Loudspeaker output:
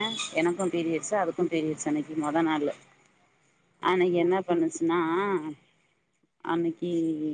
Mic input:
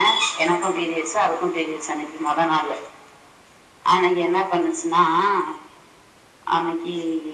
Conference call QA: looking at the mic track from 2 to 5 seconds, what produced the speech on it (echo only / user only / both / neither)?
echo only